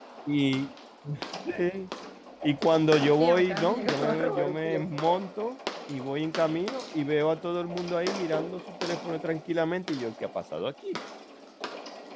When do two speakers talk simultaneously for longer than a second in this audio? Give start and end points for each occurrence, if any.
3.2-4.8

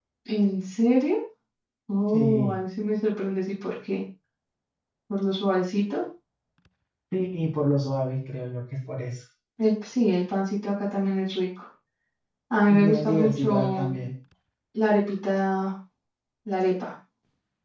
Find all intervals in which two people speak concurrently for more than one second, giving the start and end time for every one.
12.7-14.0

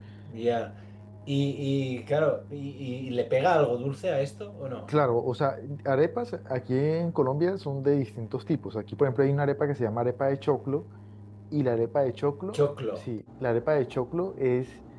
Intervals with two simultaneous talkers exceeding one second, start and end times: none

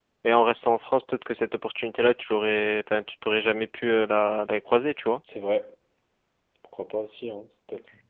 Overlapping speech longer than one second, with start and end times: none

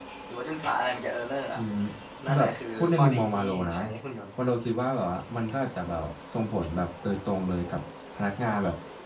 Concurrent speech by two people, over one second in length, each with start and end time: 2.2-3.8

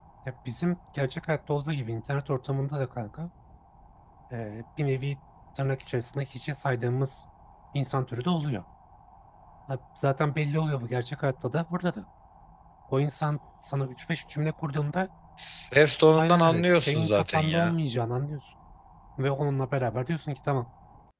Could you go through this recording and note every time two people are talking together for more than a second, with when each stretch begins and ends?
16.2-17.7

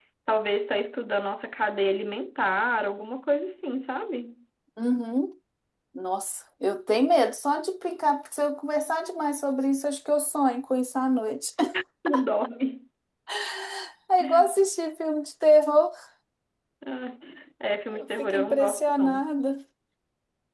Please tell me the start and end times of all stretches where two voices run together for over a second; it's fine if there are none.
17.9-19.2

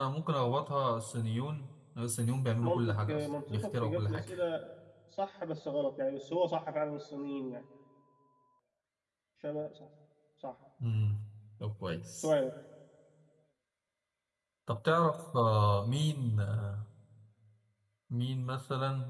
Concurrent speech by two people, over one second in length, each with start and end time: 2.6-4.3

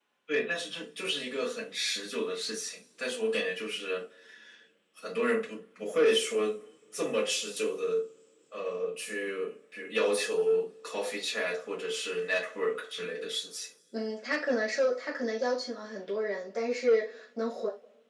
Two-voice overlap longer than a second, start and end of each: none

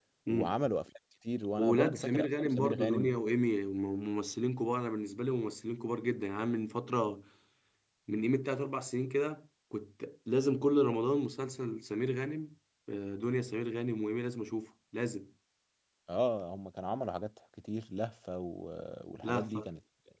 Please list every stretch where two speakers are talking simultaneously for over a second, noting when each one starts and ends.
1.6-3.1

